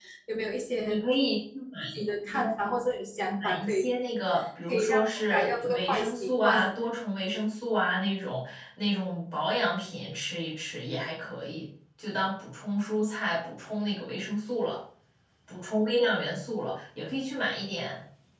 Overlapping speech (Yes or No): Yes